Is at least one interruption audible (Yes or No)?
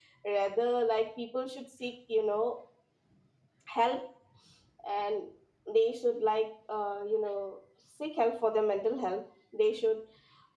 No